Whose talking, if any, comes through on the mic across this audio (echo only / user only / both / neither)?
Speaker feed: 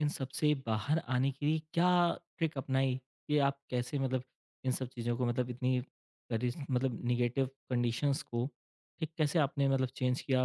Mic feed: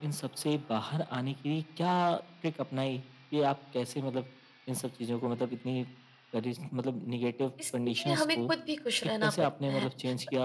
both